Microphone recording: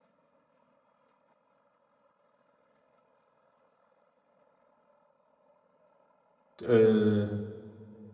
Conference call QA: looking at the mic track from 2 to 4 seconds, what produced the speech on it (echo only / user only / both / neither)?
neither